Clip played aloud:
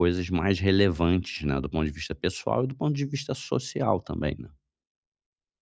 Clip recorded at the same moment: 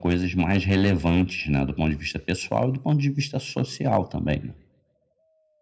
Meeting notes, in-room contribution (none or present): none